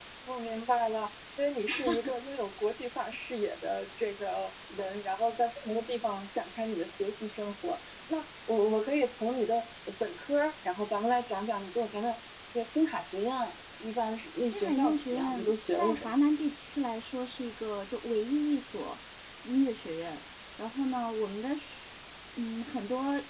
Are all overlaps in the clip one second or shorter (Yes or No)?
No